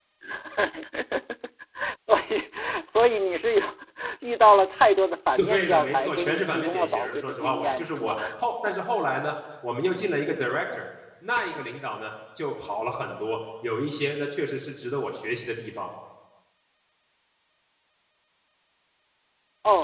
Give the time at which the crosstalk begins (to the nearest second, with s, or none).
5 s